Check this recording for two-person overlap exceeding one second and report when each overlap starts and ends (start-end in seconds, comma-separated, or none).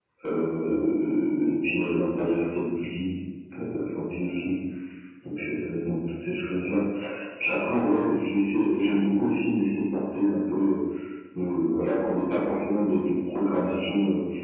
none